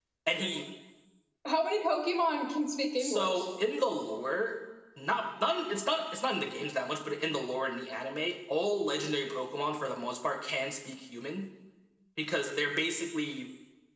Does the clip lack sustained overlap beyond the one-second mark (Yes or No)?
Yes